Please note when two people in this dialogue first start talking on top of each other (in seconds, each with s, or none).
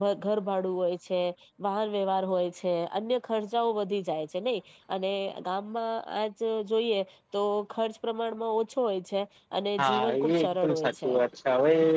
9.8 s